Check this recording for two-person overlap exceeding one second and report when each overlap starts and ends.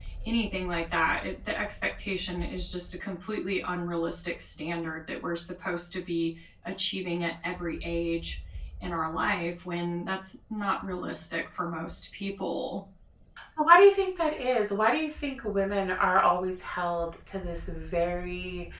none

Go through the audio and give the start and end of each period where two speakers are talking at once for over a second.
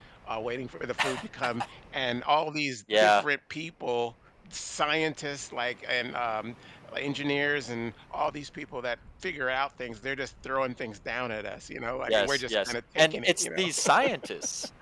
12.1-13.9

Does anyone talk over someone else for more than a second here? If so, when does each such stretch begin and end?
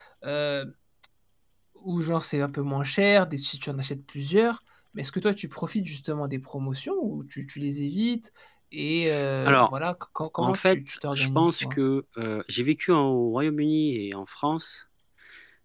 10.4-11.8

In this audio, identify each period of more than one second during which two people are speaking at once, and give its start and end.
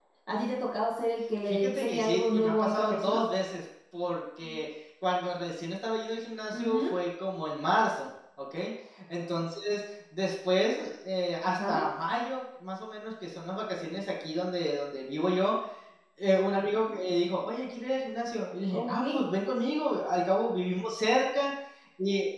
1.4-3.2

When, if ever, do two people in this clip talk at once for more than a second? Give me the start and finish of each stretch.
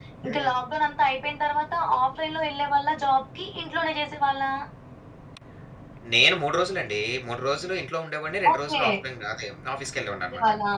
none

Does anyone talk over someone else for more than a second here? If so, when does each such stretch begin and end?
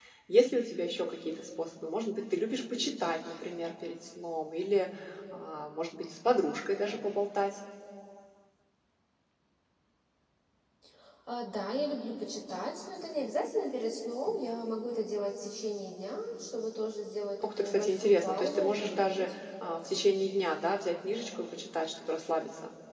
17.4-19.3

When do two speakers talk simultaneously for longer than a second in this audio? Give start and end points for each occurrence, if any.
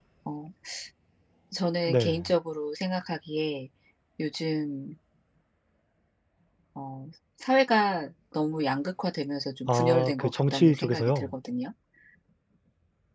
9.7-11.3

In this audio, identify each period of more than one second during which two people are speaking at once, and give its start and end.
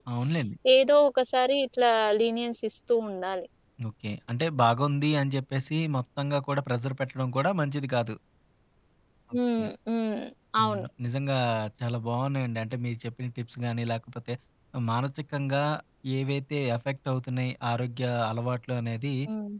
none

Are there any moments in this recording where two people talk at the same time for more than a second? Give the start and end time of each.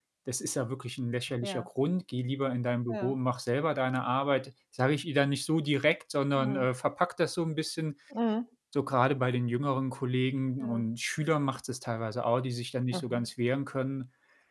none

